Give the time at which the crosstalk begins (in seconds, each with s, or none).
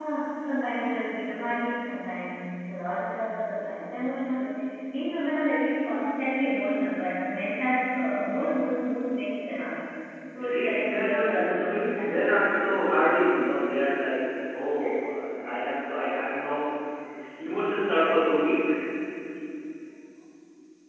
10.4 s